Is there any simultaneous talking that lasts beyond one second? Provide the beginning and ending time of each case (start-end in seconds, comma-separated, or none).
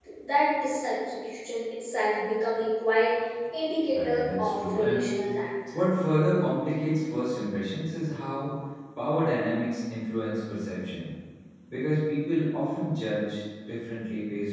3.9-5.1